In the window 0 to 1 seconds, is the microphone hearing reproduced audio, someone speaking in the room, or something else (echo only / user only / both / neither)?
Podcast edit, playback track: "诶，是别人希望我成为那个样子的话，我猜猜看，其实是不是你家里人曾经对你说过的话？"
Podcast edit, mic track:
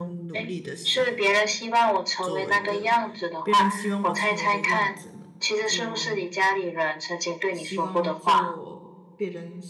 both